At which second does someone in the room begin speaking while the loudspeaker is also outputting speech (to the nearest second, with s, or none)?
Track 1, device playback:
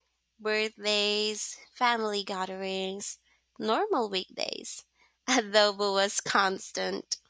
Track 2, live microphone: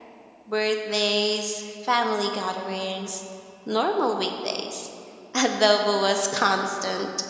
none